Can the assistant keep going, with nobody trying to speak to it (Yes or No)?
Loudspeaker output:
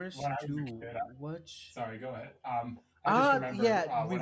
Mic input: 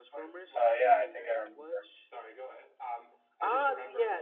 No